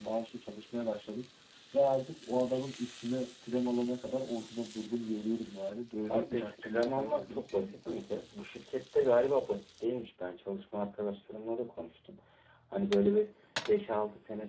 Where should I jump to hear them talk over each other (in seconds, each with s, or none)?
6.0 s